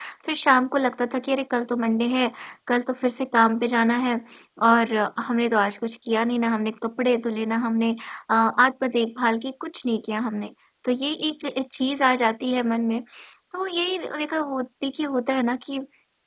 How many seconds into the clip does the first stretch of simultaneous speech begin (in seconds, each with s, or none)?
none